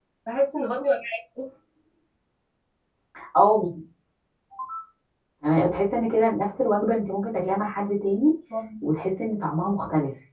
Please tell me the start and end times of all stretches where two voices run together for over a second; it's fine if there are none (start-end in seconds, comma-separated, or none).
none